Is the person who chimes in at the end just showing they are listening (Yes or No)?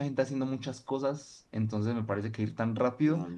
Yes